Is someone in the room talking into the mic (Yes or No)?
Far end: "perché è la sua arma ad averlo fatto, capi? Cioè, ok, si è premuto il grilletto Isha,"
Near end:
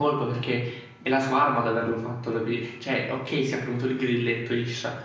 No